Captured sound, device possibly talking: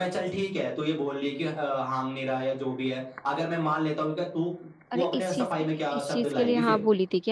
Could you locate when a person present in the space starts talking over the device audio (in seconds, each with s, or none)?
4.9 s